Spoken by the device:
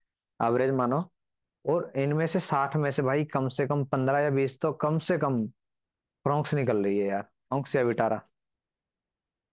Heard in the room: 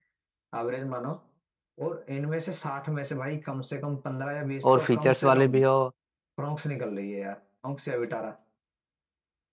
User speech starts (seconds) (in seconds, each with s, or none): 4.7 s